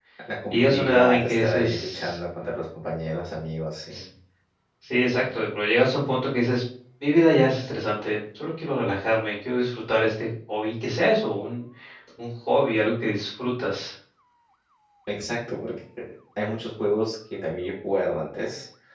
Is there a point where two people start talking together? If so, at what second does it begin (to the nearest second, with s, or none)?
1 s